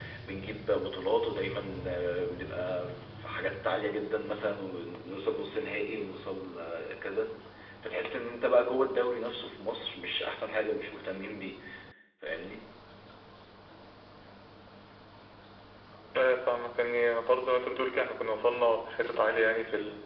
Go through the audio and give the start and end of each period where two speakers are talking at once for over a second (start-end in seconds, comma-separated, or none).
none